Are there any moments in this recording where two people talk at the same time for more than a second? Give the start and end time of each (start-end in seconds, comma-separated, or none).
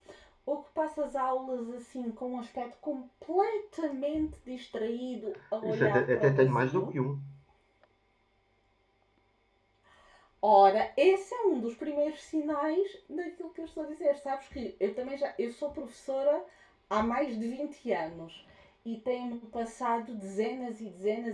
5.6-6.9